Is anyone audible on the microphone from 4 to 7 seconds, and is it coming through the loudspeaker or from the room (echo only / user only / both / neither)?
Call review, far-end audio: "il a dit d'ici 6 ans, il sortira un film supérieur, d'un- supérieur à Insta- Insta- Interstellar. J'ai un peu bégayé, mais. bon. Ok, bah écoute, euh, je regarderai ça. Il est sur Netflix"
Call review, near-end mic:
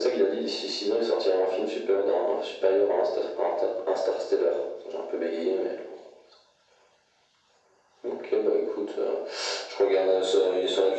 echo only